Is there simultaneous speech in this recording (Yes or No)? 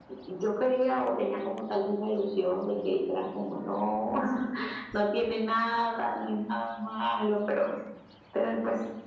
No